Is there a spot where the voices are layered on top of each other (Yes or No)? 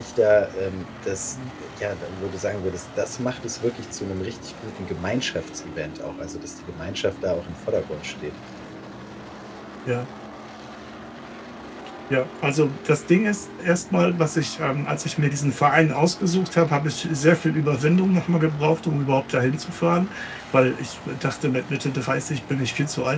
No